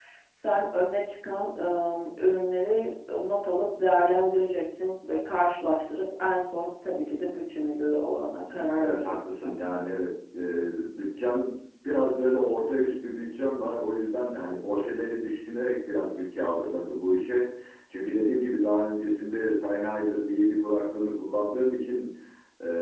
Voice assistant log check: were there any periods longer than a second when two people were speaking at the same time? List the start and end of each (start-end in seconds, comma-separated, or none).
8.5-9.7